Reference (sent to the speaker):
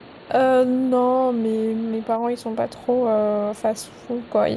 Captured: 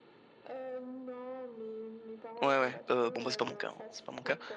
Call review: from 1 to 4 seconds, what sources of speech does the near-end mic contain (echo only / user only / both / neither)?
both